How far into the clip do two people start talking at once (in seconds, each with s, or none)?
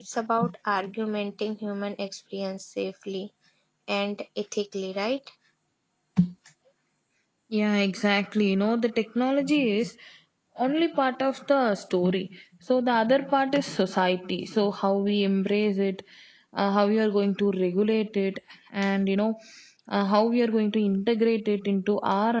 none